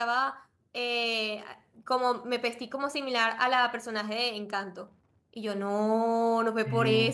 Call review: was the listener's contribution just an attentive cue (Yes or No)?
Yes